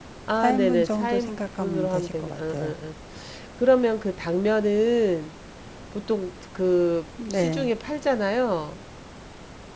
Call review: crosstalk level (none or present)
present